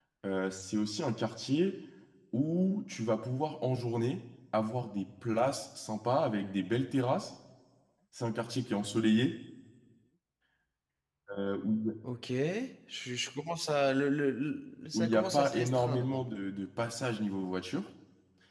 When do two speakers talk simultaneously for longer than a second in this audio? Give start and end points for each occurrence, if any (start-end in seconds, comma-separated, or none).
14.9-16.2